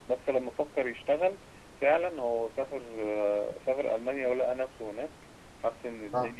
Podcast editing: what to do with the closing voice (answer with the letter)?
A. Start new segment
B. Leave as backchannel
B